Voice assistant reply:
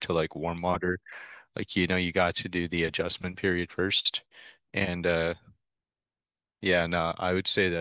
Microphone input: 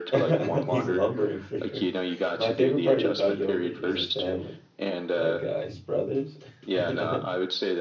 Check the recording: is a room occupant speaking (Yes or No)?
Yes